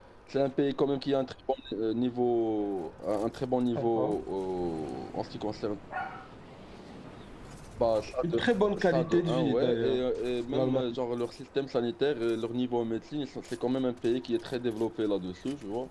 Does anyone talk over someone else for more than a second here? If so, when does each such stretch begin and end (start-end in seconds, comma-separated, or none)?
8.2-10.0